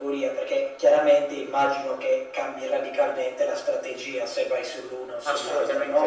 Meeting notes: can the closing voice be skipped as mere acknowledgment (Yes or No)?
No